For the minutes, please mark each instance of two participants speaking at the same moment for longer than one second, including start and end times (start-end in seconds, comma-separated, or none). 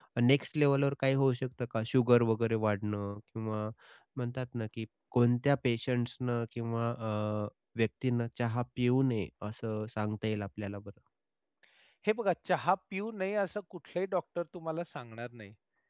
none